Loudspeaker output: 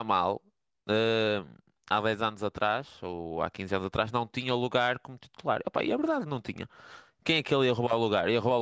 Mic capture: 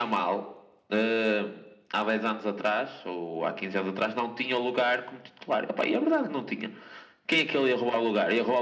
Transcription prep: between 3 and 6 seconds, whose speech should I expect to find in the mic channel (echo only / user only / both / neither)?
echo only